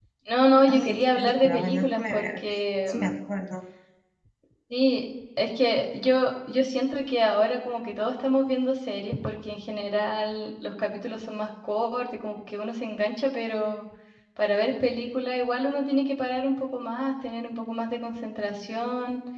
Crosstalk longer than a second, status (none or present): present